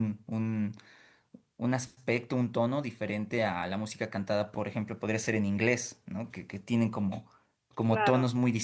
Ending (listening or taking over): listening